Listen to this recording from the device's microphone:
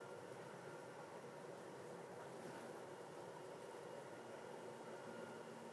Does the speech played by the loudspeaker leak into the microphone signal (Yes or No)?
No